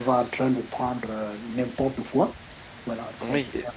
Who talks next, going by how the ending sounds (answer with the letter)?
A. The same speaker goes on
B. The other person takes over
B